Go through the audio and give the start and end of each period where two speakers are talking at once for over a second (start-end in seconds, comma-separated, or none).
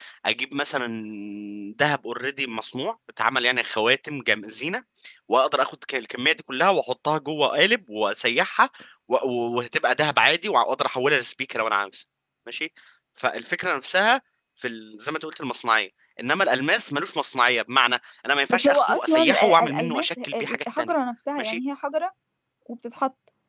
18.5-20.9